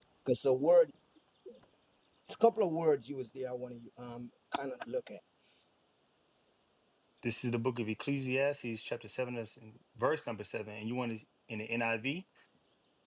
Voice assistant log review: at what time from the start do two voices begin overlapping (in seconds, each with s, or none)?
none